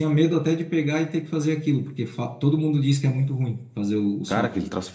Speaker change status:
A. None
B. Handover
B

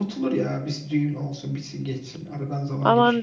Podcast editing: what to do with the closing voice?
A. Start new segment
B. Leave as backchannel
A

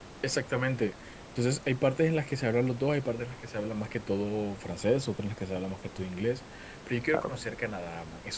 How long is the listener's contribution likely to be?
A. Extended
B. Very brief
B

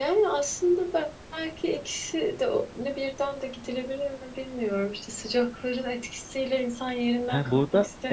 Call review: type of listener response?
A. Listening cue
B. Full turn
B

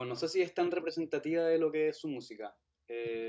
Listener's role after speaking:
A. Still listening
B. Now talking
A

